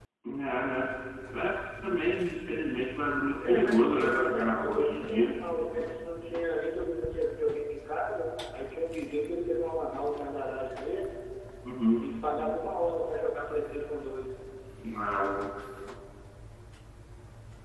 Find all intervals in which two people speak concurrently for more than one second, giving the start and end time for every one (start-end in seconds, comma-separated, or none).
3.5-5.3